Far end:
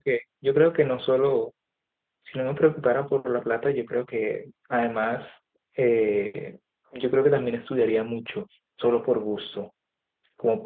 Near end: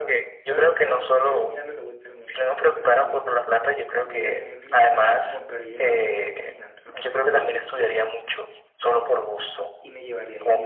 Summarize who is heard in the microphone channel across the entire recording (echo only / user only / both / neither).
both